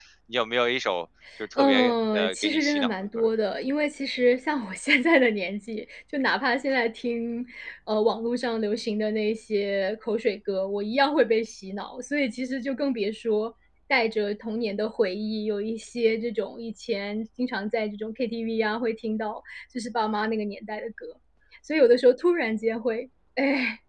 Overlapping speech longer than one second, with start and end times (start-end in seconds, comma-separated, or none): 1.6-3.3